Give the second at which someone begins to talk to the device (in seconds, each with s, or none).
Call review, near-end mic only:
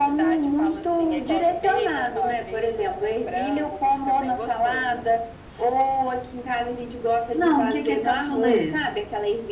7.3 s